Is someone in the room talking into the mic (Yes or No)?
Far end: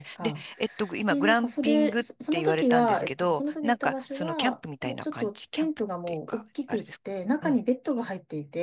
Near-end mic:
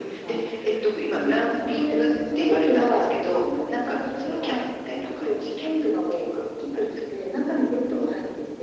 No